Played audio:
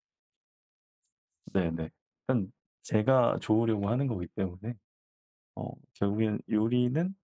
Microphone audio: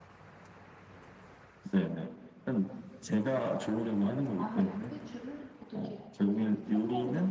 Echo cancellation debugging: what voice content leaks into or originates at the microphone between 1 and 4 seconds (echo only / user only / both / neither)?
echo only